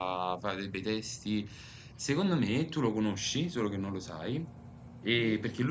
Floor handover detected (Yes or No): No